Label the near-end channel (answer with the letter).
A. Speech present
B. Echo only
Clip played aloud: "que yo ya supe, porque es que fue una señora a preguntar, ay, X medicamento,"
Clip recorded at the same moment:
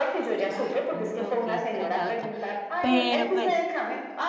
A